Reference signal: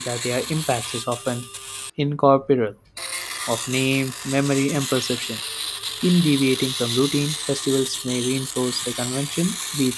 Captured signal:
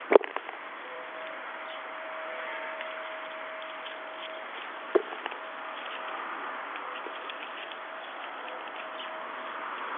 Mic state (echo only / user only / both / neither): neither